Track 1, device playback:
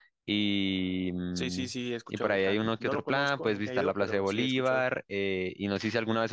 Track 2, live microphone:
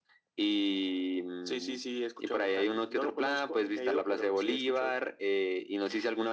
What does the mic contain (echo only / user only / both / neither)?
echo only